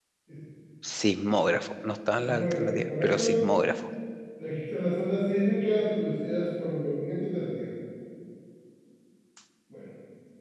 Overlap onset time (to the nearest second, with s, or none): 2 s